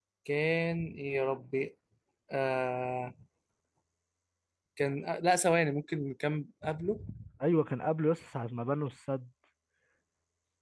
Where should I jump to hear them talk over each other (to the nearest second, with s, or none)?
none